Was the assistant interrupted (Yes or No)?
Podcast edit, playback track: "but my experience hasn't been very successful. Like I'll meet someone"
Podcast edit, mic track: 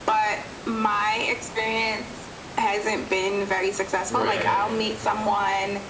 Yes